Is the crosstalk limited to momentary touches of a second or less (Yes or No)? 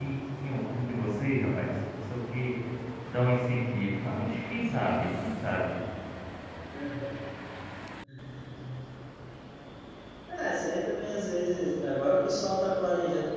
Yes